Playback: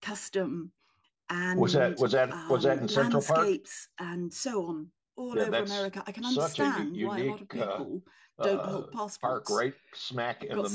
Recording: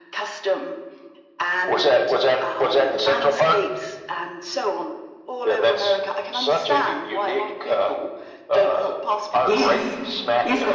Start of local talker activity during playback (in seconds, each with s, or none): 9.4 s